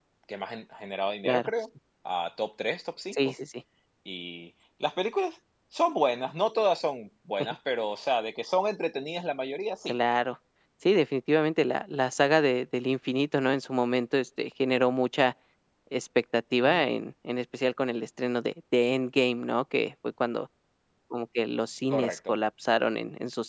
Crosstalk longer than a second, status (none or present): none